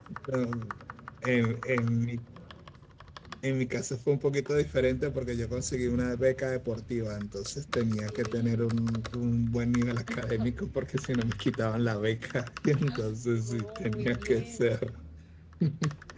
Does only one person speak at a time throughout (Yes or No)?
No